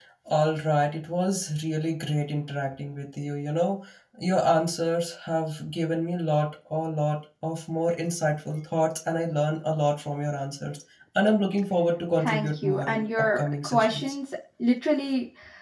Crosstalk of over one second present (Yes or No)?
Yes